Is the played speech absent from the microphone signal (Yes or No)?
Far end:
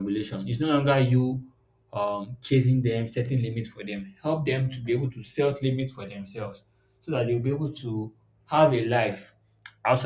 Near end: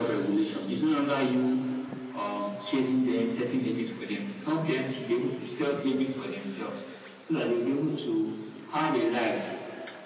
No